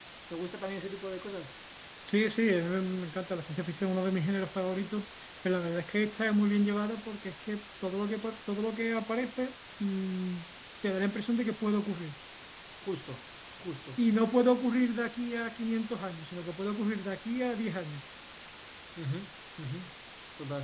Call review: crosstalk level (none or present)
none